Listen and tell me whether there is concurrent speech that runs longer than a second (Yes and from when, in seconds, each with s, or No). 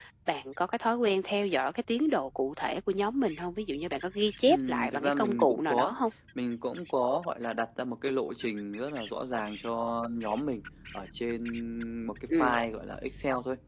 Yes, from 4.5 s